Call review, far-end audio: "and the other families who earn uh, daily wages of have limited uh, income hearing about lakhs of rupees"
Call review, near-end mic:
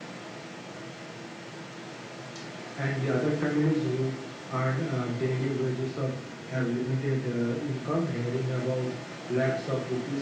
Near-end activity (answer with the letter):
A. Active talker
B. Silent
B